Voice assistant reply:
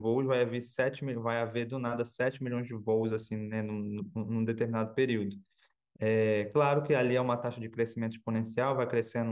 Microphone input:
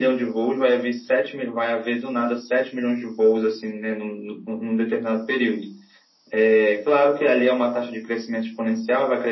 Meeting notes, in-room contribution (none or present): none